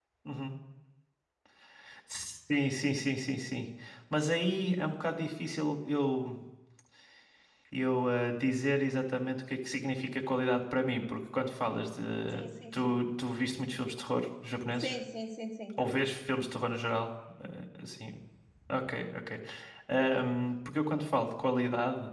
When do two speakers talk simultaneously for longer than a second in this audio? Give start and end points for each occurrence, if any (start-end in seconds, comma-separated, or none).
none